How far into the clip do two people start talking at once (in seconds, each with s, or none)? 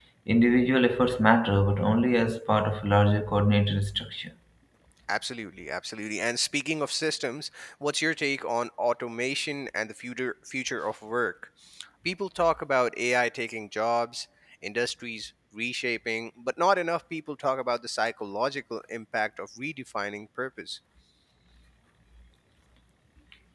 none